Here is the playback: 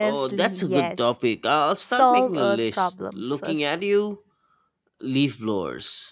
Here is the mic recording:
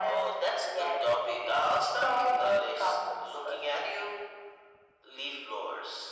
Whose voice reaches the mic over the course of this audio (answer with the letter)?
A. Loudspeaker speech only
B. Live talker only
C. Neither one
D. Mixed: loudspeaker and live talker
A